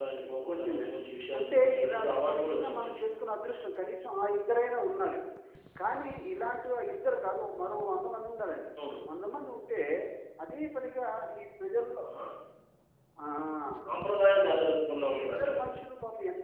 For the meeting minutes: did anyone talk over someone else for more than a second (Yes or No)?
Yes